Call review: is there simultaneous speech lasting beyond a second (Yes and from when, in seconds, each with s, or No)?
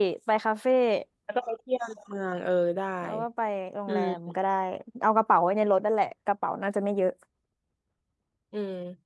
No